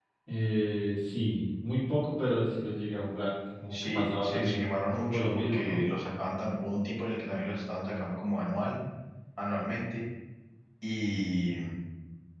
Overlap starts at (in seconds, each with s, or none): 3.7 s